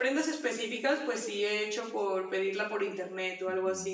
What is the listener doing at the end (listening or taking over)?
taking over